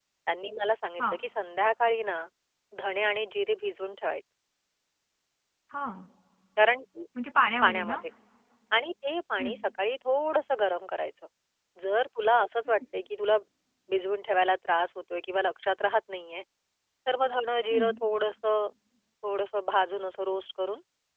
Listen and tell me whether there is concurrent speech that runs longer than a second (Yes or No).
No